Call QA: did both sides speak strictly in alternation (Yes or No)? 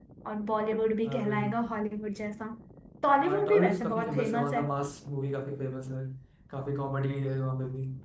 No